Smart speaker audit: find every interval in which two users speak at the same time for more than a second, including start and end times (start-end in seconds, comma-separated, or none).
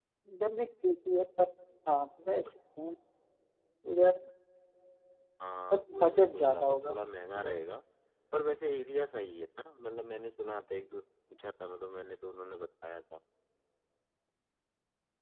5.7-6.9